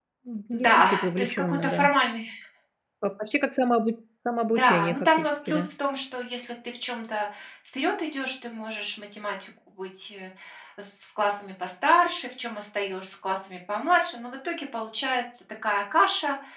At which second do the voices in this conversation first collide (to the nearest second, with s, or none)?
1 s